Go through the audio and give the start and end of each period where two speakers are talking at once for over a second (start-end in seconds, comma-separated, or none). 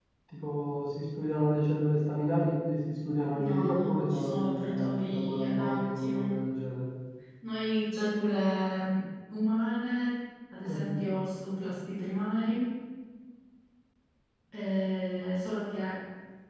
3.3-6.4